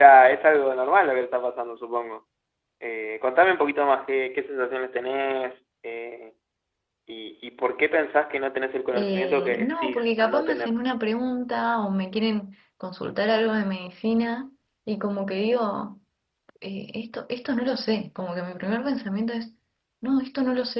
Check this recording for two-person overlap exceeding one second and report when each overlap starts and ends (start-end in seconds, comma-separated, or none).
8.9-10.8